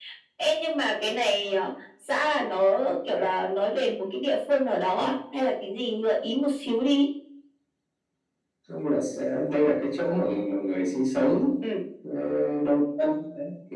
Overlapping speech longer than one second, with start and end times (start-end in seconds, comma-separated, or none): none